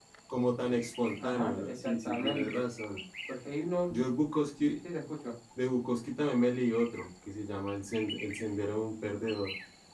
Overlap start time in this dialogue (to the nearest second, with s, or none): 1 s